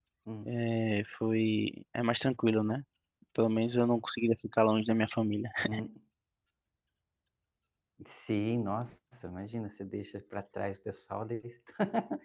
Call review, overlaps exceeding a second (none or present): none